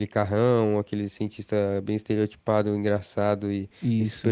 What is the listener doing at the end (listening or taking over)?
listening